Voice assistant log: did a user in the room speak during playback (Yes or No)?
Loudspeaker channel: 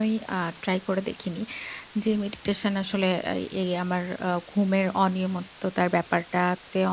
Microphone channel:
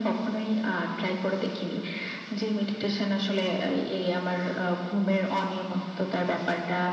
No